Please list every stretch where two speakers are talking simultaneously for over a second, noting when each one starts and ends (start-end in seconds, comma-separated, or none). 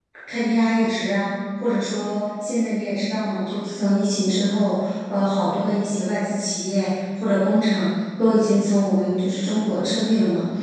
none